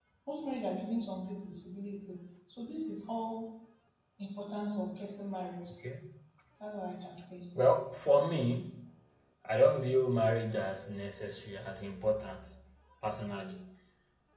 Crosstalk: none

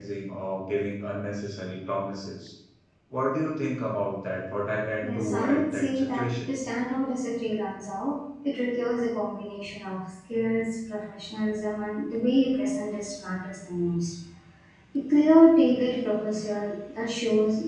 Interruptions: present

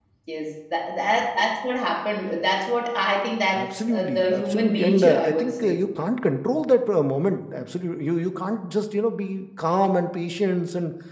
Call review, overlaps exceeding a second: present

